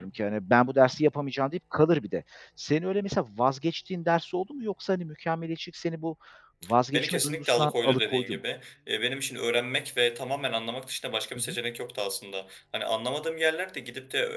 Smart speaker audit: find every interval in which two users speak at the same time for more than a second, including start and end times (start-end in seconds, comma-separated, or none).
6.9-8.4